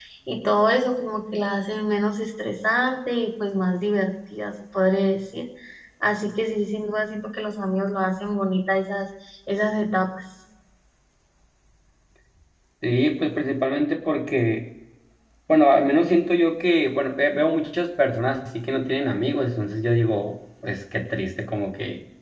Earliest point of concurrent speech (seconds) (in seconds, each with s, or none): none